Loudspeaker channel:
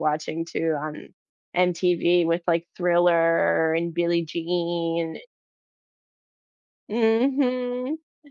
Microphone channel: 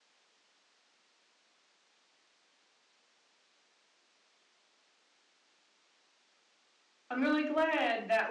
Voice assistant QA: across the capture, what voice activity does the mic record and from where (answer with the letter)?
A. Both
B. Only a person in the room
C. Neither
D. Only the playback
B